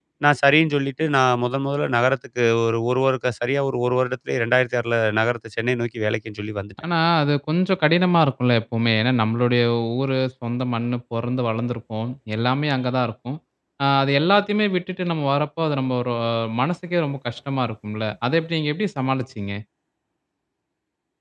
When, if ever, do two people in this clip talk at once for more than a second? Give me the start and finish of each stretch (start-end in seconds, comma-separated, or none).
none